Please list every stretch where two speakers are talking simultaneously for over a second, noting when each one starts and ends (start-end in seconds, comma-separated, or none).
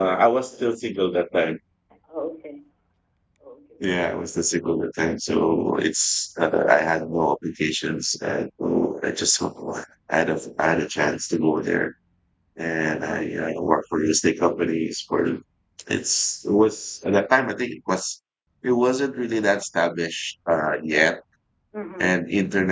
none